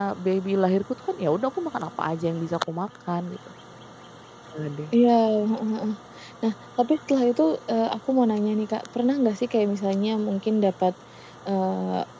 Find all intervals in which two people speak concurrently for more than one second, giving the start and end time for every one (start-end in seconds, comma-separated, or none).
none